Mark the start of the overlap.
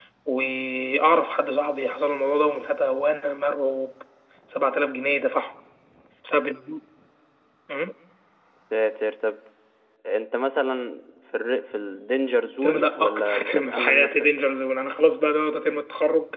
12.6 s

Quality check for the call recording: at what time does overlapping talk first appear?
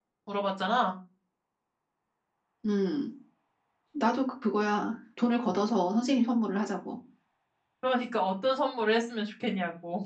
none

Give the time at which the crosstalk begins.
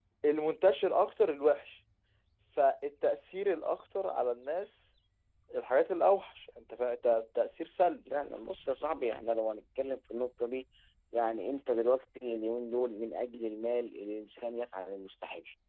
none

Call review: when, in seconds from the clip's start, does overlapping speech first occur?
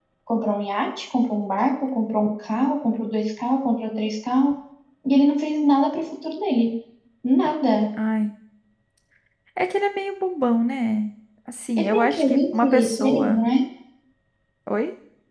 11.8 s

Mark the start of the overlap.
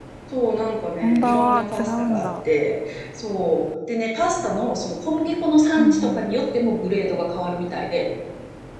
1.0 s

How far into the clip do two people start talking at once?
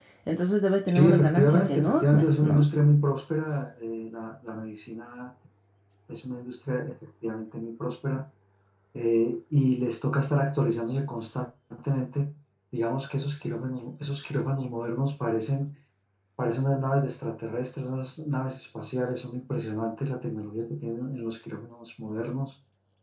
0.9 s

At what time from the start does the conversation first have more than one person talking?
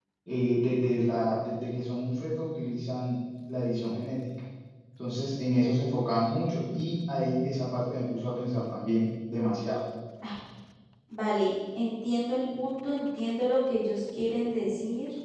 none

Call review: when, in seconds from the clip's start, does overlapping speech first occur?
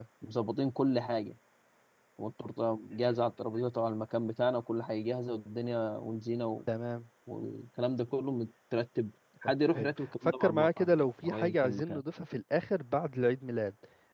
9.4 s

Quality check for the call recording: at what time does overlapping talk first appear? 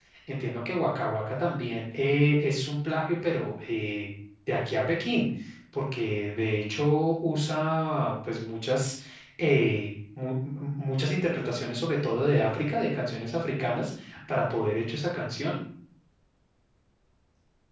none

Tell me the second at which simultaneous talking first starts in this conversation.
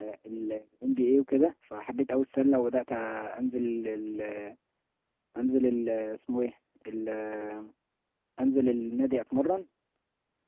none

